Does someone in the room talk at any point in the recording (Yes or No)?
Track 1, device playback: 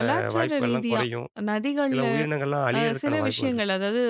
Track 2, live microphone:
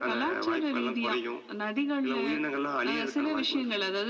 No